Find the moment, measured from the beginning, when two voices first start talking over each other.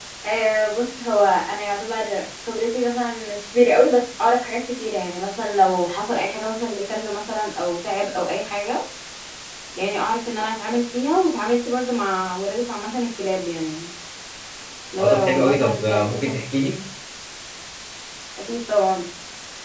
15.0 s

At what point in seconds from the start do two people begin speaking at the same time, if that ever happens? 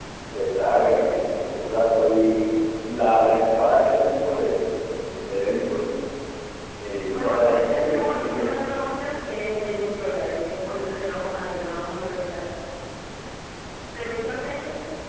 7.1 s

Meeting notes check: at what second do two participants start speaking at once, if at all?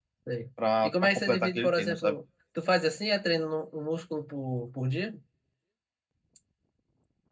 0.8 s

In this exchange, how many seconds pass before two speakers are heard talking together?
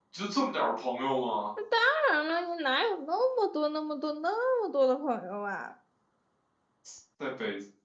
none

